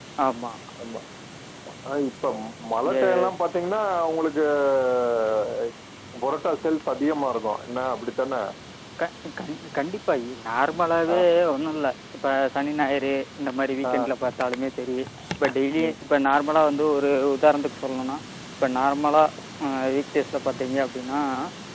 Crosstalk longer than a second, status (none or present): none